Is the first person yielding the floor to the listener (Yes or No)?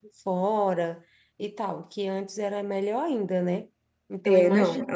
Yes